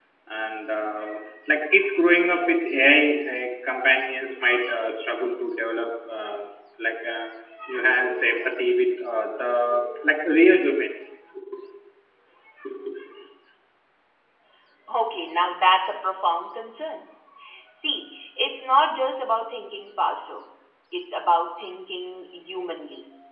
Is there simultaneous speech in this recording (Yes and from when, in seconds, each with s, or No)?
No